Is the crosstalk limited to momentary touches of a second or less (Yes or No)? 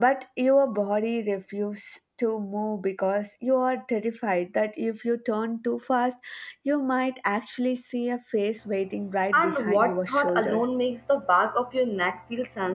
No